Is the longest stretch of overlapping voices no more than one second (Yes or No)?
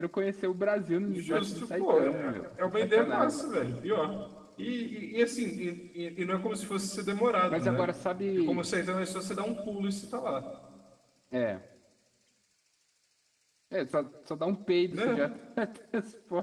No